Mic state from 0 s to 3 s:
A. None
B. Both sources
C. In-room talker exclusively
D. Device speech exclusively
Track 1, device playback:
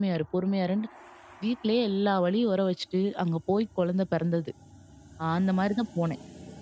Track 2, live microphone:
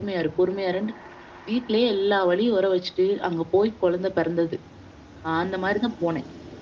D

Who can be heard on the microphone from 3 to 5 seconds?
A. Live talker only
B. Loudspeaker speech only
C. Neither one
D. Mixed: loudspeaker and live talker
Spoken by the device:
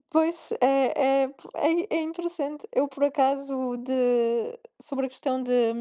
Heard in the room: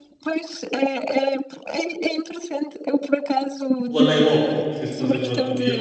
D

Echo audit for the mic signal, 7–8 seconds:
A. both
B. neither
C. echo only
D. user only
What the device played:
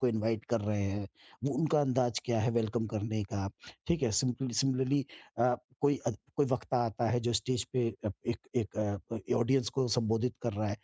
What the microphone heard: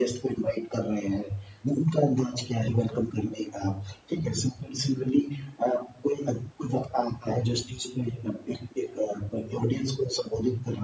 C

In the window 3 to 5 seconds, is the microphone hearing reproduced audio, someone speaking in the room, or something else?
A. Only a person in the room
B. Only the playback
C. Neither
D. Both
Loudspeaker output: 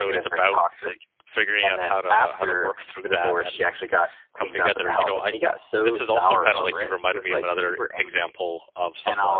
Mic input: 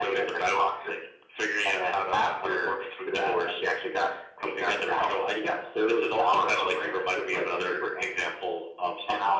B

